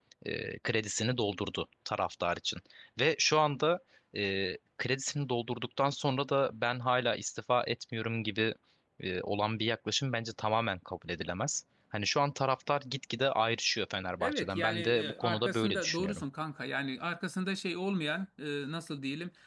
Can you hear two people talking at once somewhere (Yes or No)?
Yes